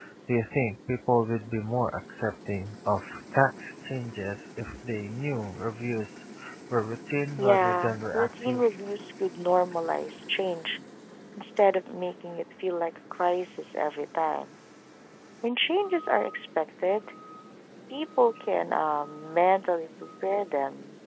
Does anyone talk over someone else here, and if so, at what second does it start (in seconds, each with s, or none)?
7.4 s